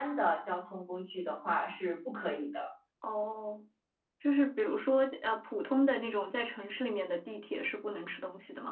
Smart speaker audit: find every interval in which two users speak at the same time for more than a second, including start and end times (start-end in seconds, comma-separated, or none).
none